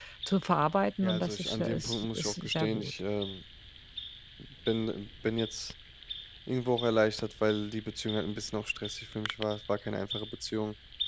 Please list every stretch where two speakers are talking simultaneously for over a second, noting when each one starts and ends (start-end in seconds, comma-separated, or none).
1.0-2.9